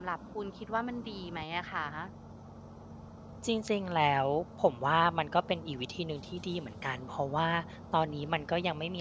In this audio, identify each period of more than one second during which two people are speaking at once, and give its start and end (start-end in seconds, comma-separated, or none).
none